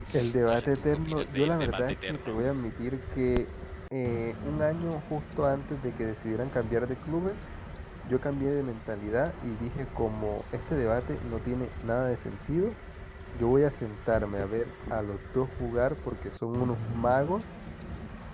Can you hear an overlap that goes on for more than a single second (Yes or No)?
Yes